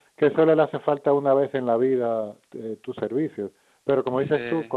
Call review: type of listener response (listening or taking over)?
listening